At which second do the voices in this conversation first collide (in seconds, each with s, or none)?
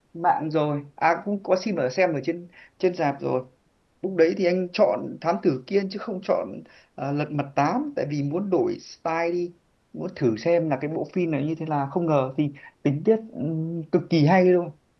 none